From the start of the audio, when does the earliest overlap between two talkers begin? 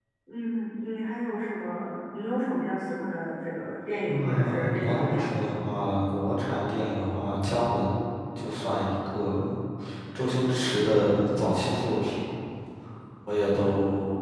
4.1 s

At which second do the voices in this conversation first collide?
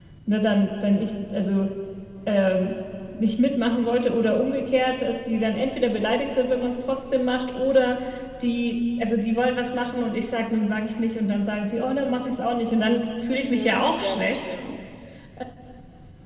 13.3 s

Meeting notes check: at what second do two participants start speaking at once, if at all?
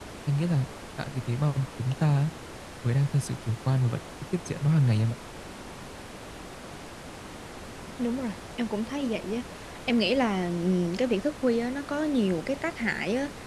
none

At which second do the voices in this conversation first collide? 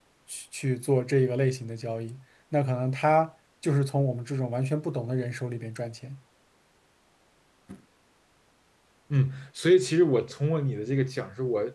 none

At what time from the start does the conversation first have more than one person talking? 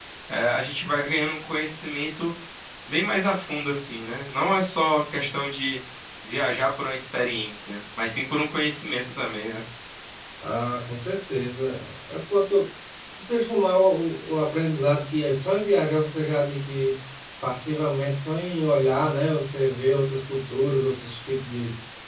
none

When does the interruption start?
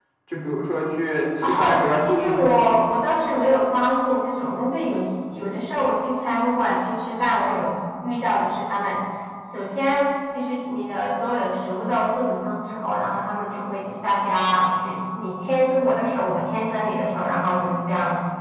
1.4 s

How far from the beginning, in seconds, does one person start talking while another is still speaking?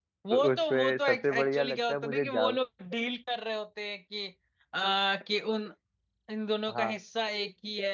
0.5 s

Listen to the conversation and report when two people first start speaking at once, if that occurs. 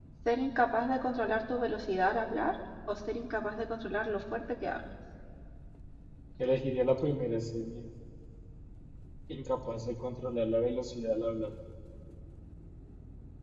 none

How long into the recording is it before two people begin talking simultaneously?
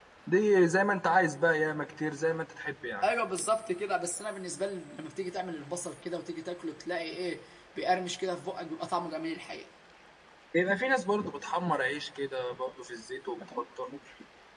none

